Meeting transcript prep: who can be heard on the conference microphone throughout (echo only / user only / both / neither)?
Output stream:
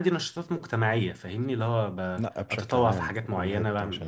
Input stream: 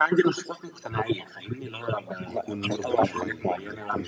both